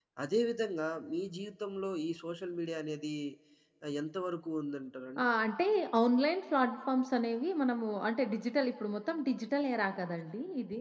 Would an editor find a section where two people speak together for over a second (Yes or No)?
No